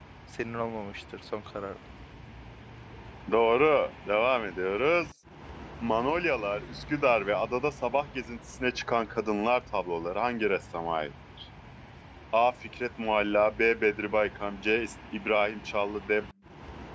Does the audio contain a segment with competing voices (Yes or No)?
No